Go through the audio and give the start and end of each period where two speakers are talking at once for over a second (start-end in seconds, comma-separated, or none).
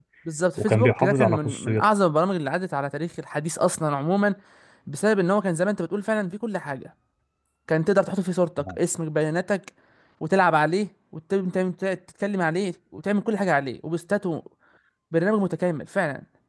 0.6-1.9